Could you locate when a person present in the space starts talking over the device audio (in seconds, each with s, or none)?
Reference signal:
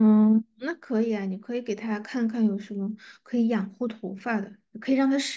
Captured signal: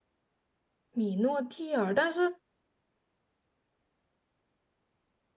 0.9 s